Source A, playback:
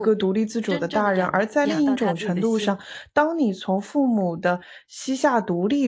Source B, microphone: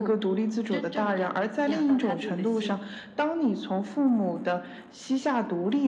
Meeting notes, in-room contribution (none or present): none